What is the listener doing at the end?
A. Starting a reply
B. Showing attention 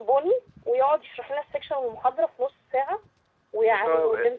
B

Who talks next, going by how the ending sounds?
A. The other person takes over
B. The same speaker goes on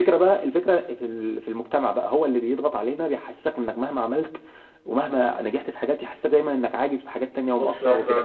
A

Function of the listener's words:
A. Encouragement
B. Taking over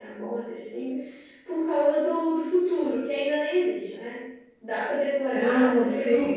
B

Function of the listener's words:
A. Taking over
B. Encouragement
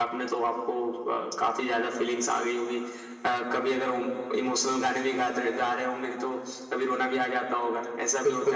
A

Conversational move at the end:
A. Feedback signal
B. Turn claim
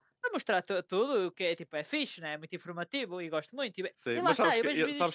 B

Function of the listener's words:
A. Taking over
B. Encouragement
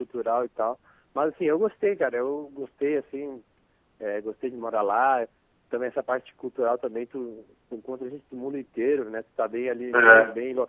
B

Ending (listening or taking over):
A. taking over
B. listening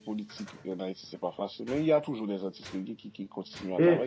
A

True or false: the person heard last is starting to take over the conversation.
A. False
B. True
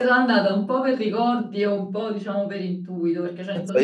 B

